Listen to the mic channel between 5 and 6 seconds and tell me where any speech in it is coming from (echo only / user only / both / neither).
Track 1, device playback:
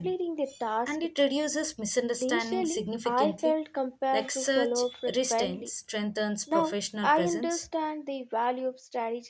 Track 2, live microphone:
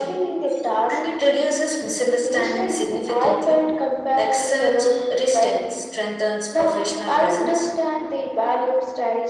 echo only